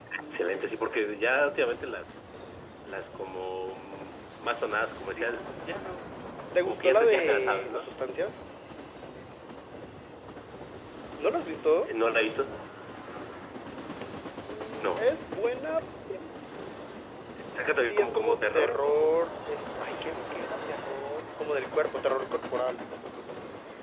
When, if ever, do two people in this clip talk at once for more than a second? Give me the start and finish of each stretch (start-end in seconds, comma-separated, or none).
6.7-7.9, 17.8-19.1